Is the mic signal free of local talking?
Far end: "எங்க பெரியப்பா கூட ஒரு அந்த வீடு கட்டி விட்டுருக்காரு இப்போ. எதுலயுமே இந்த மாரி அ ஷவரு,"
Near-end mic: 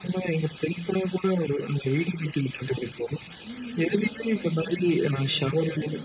No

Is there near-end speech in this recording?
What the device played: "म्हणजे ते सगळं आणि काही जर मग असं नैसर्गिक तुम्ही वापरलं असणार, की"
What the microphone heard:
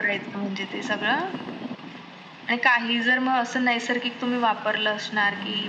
No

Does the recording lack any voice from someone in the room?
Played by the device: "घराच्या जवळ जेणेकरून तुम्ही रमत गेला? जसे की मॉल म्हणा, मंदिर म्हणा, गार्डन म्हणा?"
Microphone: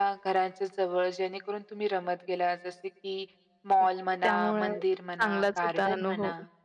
No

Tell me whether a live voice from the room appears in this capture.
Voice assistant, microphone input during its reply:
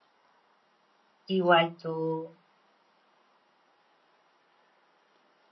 Yes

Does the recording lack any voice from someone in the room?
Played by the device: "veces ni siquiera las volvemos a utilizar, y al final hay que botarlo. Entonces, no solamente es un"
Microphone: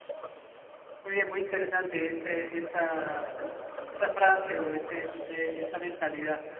No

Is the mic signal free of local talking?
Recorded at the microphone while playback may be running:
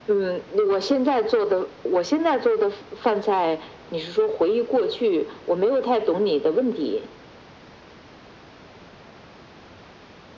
Yes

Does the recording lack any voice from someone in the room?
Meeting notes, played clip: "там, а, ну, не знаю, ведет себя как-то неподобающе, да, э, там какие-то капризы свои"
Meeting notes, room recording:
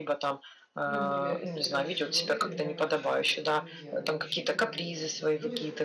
No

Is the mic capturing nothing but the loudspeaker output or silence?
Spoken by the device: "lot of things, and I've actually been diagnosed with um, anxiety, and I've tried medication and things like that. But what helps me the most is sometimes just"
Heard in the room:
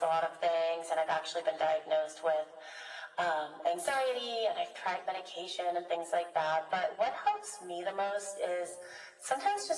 Yes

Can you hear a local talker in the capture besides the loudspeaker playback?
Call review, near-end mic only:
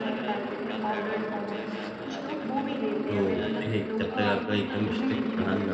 Yes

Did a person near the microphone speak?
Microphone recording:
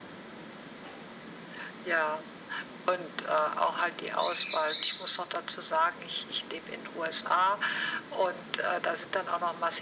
No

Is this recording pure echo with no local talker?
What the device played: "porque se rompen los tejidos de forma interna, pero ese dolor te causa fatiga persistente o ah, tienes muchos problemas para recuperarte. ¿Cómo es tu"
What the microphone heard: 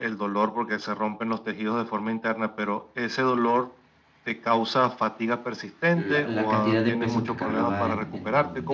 No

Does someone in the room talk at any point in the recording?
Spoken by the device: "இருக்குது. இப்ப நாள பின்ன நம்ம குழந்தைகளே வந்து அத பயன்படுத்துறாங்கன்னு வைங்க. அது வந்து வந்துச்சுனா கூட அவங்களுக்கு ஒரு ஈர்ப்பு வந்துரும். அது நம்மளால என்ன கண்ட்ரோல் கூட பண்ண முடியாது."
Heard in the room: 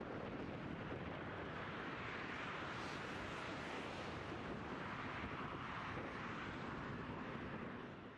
No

